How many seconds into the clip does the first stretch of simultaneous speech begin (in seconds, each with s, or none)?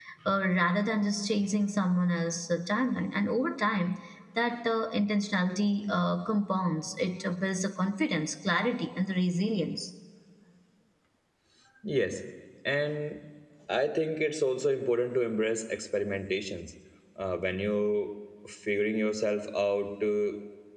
none